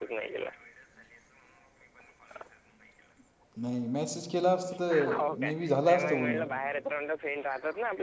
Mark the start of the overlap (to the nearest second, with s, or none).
5 s